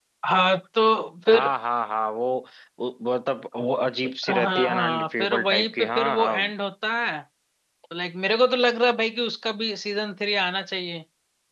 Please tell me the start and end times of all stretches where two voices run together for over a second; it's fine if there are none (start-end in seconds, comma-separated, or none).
4.3-6.5